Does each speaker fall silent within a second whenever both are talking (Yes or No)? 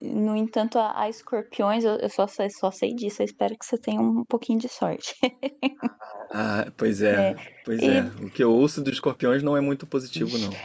Yes